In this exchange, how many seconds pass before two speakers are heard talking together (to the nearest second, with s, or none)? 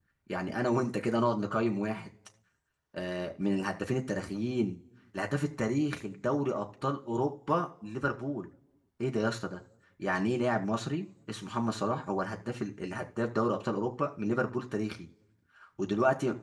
none